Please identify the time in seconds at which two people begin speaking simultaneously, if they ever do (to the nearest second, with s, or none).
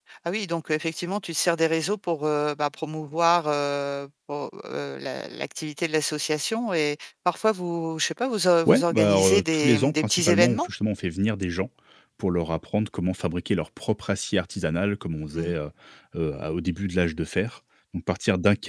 9 s